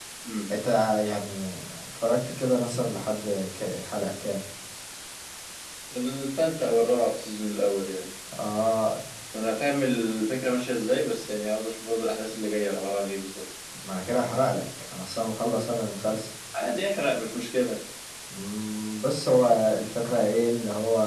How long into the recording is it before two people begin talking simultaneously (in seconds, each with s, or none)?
none